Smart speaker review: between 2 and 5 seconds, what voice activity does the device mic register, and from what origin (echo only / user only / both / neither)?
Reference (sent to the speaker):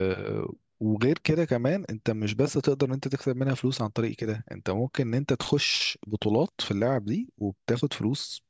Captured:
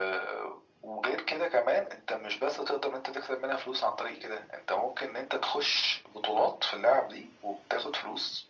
echo only